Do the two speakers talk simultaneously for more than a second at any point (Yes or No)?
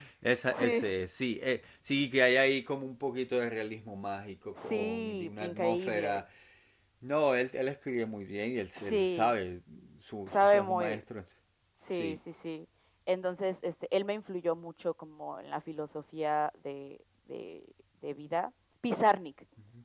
Yes